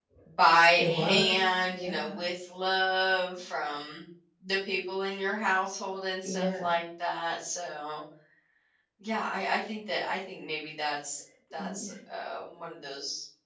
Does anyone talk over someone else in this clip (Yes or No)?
Yes